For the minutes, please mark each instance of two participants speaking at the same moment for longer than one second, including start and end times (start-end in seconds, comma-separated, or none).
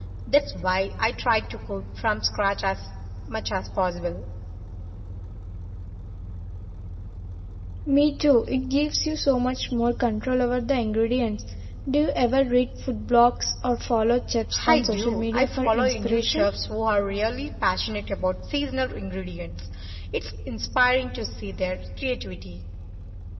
14.7-16.5